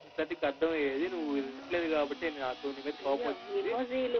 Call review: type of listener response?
taking over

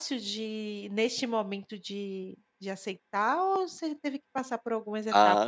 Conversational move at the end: taking over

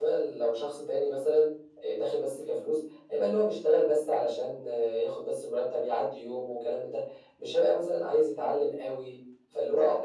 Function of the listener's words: taking over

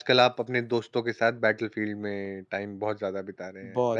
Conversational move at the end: taking over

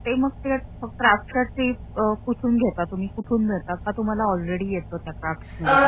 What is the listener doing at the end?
taking over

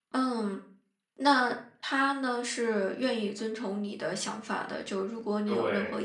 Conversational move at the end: listening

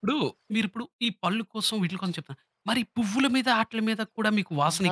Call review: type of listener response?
taking over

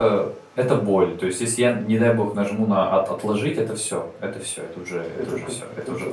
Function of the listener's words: taking over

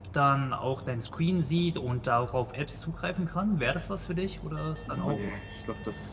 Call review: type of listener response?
taking over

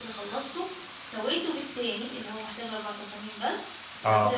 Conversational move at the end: listening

